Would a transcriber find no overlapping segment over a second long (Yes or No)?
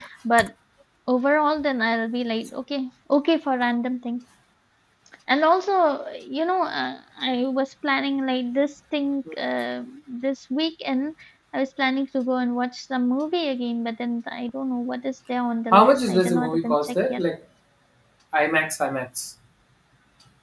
No